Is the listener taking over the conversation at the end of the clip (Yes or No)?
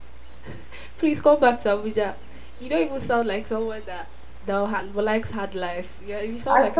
Yes